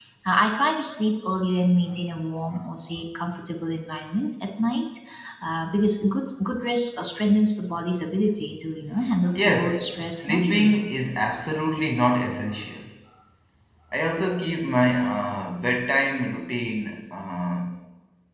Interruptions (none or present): present